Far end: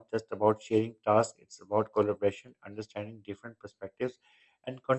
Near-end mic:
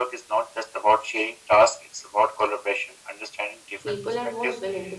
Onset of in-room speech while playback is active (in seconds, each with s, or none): 3.8 s